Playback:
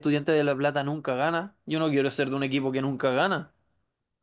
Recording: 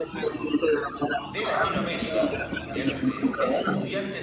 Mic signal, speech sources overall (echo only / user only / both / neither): both